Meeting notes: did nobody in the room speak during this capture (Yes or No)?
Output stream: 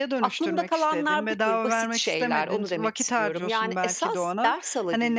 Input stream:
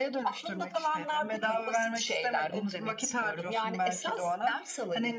Yes